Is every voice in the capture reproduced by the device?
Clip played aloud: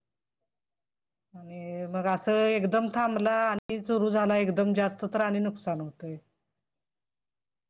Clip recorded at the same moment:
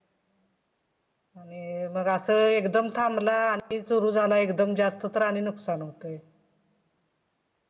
Yes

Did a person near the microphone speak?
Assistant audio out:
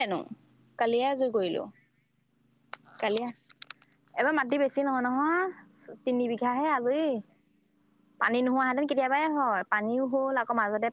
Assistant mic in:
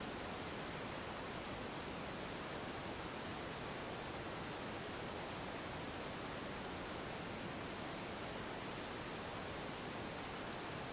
No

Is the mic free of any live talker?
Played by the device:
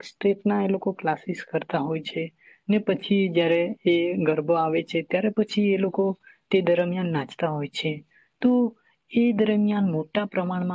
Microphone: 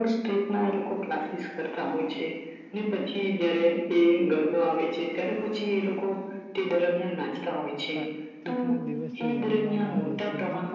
No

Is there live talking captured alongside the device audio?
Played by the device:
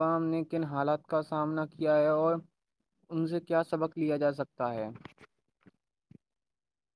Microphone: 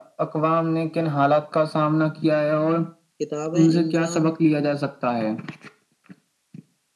Yes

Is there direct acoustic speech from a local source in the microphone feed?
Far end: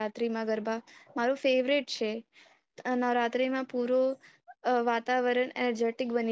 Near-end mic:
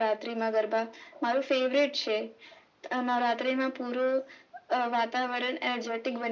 No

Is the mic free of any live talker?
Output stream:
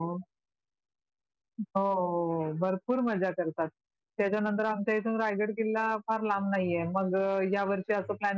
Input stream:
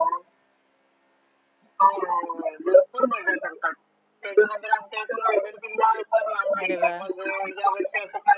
No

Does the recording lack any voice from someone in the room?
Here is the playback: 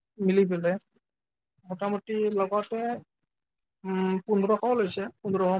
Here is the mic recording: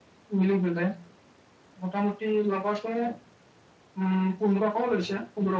Yes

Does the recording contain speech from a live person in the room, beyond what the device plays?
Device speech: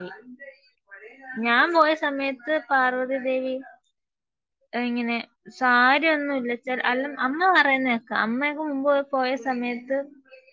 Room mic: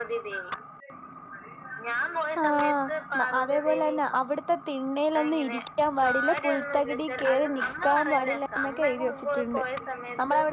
Yes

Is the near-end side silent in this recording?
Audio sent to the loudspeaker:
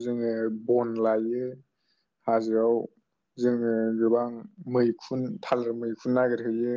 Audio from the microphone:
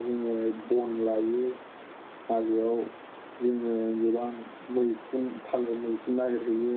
Yes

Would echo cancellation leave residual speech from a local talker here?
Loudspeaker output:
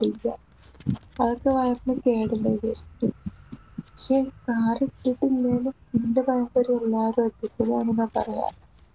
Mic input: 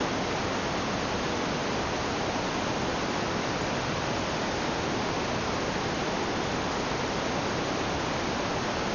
No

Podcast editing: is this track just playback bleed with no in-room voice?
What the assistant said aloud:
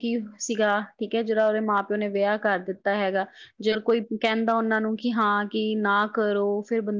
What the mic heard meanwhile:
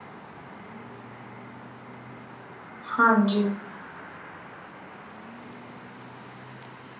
No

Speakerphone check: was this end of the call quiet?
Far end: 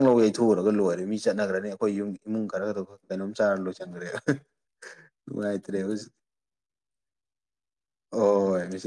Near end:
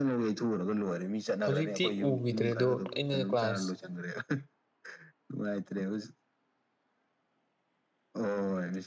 No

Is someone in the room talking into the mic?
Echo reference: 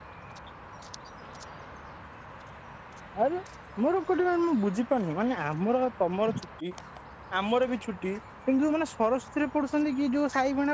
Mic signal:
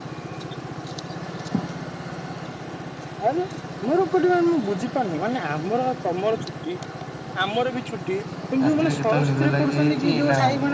Yes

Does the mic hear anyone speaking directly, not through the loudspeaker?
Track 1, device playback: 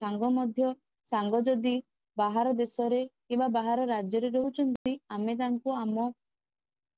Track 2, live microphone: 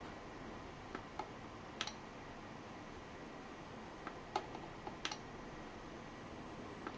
No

